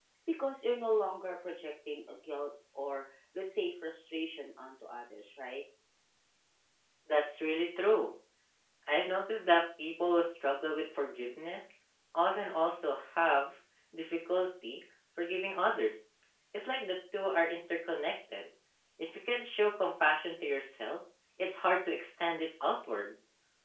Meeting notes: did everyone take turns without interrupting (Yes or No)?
Yes